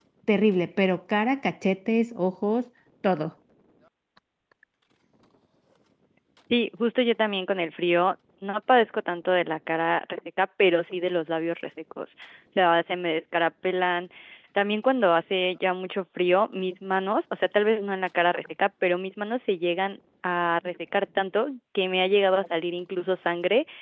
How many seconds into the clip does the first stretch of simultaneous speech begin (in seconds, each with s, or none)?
none